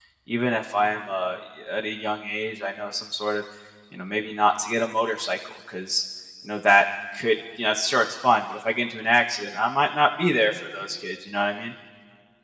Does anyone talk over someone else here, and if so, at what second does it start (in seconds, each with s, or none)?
none